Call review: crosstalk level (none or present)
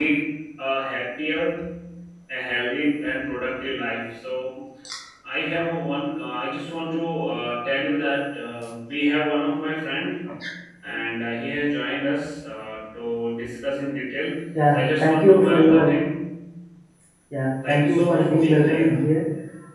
present